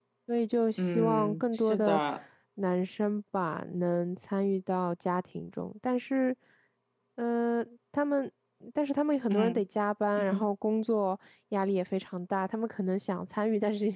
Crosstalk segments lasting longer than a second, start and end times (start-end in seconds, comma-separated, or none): 0.8-2.0